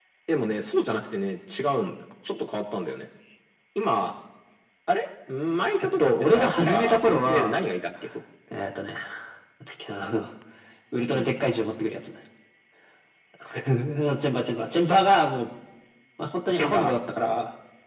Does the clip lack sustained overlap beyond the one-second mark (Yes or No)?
No